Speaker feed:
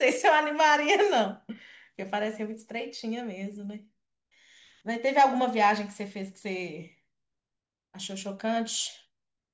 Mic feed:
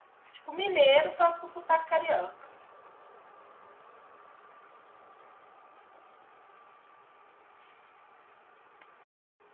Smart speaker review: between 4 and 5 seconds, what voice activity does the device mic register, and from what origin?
neither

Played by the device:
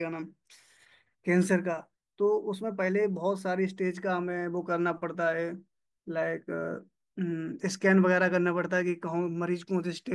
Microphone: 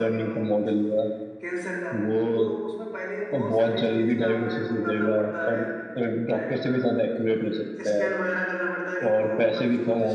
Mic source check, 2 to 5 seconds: both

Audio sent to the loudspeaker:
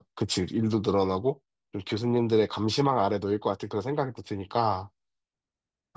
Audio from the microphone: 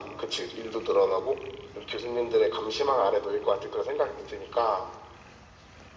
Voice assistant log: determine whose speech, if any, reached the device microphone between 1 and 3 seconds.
echo only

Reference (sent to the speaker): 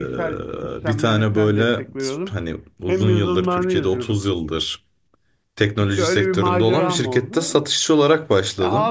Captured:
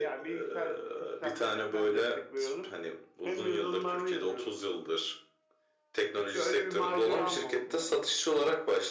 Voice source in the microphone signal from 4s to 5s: echo only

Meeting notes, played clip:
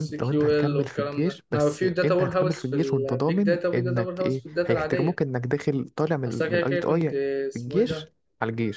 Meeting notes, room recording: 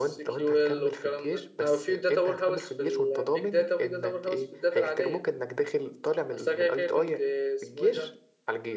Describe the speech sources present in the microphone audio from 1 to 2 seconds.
echo only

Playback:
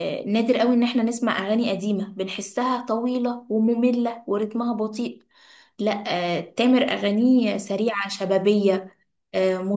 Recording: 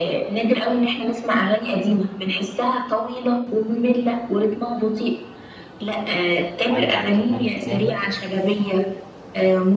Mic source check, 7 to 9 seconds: both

